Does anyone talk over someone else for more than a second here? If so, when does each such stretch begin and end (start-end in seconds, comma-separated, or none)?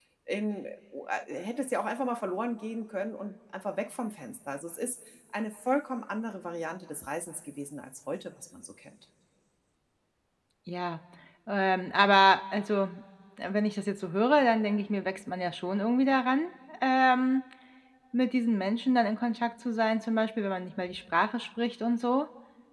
none